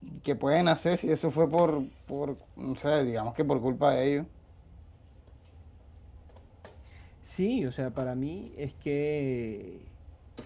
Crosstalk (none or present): none